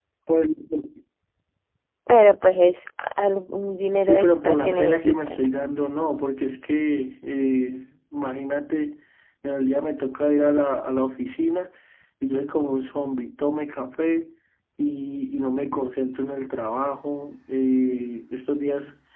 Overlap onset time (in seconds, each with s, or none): 4.0 s